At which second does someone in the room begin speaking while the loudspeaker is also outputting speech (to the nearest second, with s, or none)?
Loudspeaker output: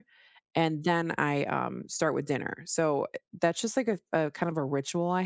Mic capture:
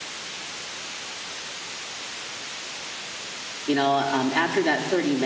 4 s